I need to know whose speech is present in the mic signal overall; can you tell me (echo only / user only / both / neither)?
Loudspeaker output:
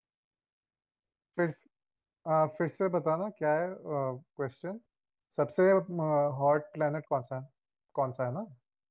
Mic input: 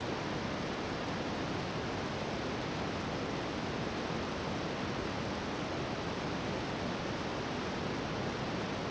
neither